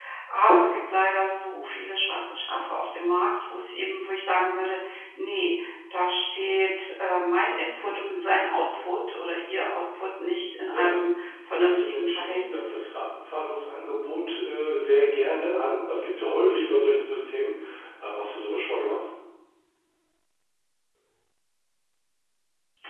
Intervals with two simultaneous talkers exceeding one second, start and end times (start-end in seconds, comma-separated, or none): 11.6-12.8